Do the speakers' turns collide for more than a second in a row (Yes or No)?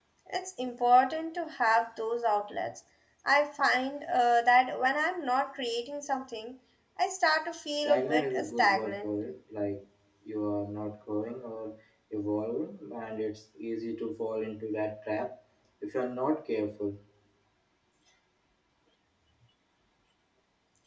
Yes